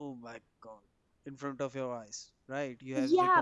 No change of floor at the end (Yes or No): No